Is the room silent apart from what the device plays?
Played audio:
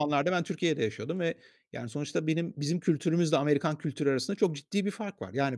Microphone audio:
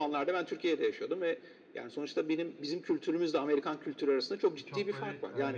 No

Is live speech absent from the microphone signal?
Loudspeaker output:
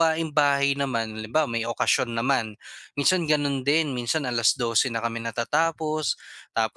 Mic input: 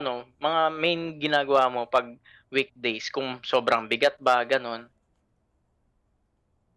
No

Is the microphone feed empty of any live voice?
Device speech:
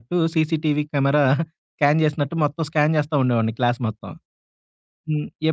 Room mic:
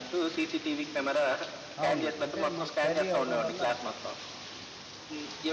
No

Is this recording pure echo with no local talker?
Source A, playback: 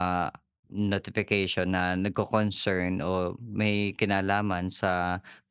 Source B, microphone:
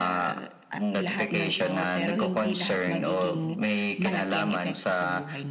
No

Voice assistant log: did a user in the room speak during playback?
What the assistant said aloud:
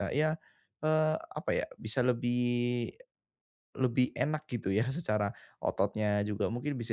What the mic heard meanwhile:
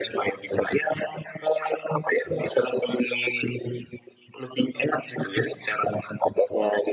No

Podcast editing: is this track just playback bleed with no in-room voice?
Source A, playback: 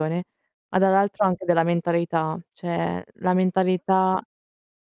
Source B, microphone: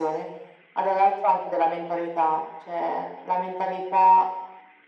Yes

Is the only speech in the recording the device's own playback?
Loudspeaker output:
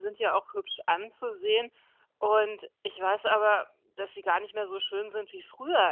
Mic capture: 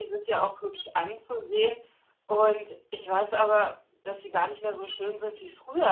Yes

